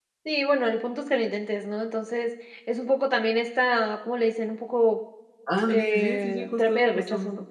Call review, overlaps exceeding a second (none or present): present